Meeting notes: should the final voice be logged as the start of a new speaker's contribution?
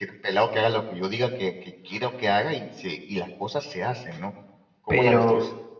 Yes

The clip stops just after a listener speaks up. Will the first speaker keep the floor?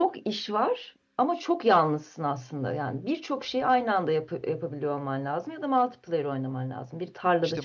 No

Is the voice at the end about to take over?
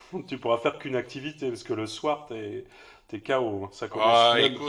Yes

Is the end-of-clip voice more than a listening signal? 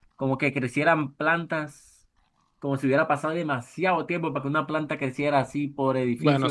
Yes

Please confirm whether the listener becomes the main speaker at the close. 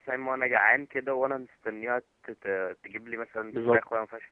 Yes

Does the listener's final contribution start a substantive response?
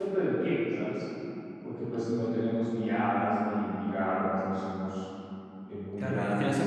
Yes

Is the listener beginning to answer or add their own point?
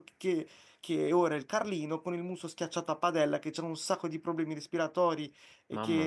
No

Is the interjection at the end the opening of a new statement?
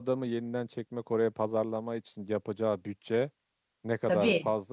No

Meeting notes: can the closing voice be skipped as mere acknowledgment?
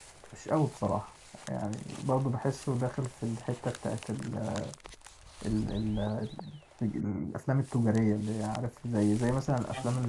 Yes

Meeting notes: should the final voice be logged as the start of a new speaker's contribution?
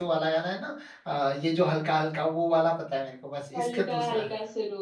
Yes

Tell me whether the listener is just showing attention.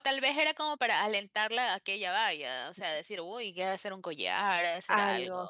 No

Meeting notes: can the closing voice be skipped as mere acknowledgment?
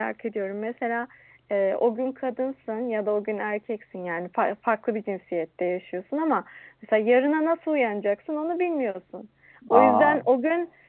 Yes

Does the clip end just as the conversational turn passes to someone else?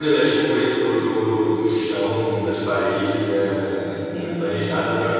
No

